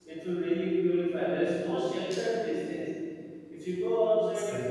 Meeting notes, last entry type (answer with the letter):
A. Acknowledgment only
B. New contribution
A